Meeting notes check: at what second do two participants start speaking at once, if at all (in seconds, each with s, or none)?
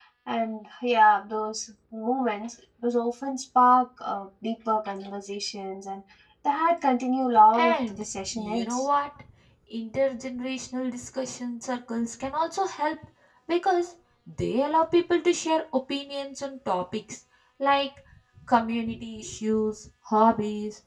7.5 s